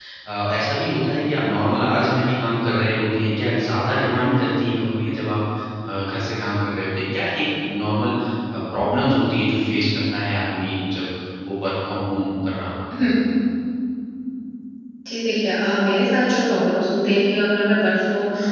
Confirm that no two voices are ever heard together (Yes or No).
Yes